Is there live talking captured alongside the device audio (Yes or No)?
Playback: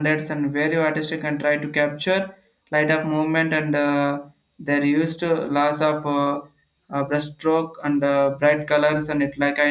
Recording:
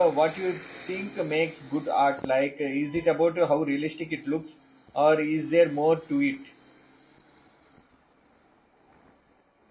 Yes